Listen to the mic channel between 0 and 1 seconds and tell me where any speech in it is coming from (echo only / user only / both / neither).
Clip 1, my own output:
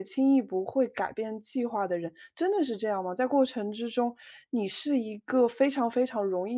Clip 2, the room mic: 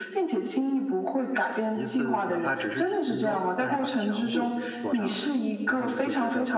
echo only